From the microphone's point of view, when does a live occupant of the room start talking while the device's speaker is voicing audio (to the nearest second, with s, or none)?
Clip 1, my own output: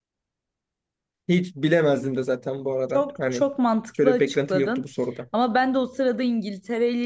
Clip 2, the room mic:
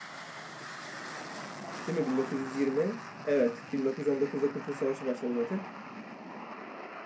2 s